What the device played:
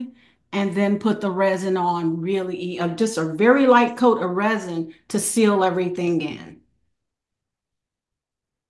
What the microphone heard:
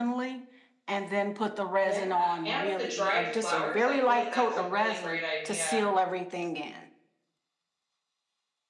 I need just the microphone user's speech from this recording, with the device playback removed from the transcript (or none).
Yeah, and with the dried flowers, I feel like that's a really great idea.